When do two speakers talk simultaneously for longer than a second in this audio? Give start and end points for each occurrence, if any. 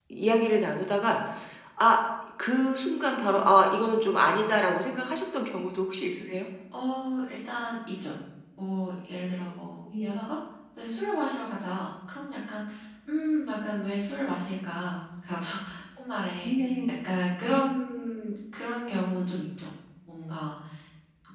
none

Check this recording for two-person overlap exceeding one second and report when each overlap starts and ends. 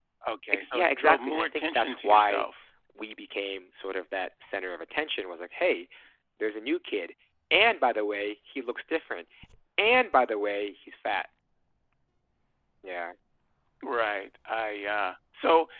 0.5-2.4

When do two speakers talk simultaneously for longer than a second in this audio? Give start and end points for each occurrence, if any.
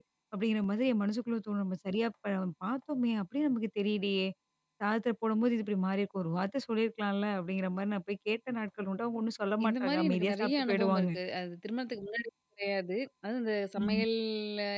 9.6-11.1

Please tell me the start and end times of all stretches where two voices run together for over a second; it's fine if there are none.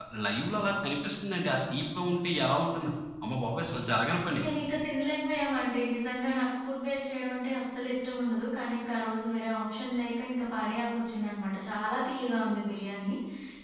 none

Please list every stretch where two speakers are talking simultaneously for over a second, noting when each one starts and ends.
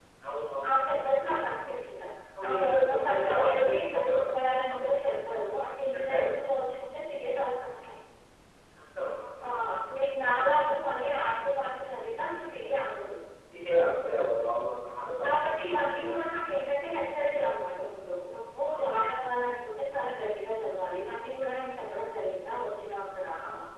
2.4-4.3

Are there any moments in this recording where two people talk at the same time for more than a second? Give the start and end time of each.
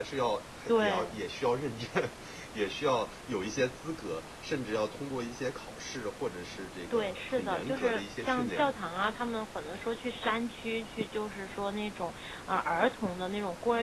6.9-8.8

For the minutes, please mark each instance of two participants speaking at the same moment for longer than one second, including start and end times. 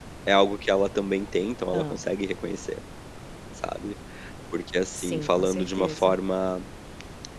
4.9-6.2

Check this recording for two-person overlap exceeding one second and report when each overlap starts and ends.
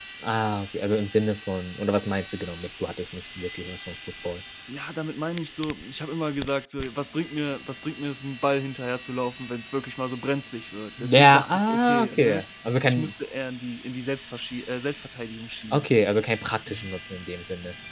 11.1-12.4

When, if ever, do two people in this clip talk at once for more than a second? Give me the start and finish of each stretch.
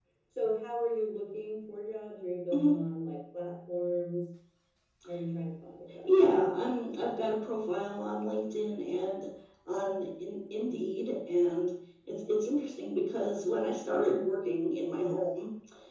none

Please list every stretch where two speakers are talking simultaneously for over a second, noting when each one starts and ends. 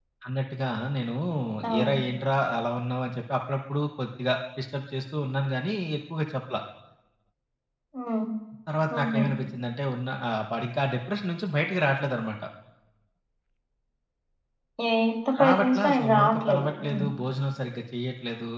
15.4-17.0

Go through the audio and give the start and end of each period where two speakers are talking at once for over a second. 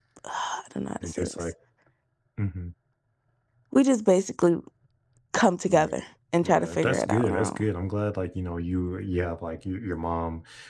6.4-7.6

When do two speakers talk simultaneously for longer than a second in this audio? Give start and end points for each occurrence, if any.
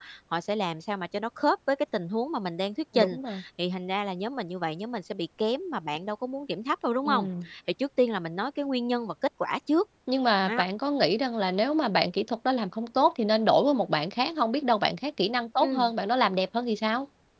none

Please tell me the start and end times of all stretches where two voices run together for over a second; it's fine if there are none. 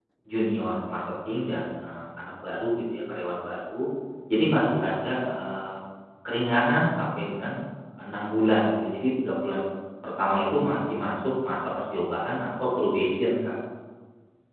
none

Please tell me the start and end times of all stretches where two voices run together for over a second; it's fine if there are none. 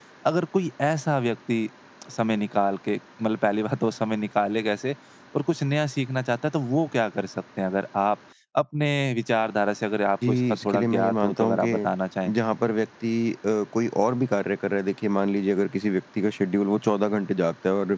10.3-11.7

